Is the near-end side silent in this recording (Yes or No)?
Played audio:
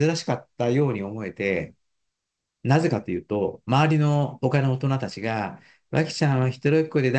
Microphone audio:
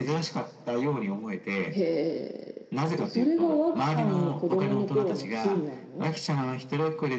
No